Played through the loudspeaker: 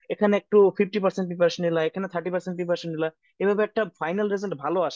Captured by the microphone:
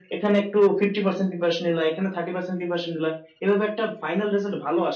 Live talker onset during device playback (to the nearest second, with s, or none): none